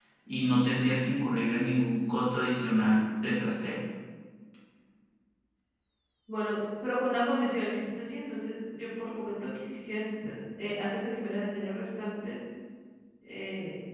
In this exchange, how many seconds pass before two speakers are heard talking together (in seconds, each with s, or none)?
none